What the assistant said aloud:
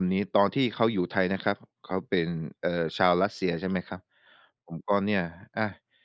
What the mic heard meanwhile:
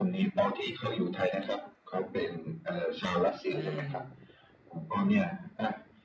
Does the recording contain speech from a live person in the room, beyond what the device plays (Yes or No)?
Yes